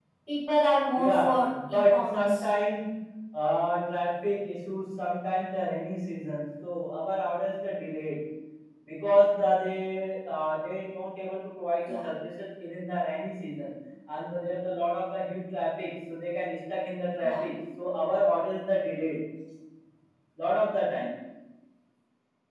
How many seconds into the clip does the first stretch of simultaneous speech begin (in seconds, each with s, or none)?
0.9 s